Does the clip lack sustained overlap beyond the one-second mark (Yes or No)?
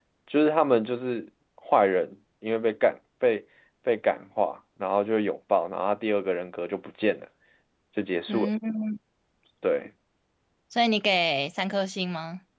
Yes